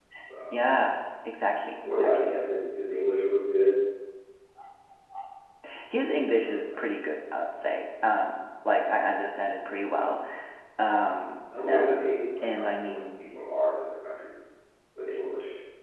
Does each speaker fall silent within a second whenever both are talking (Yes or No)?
No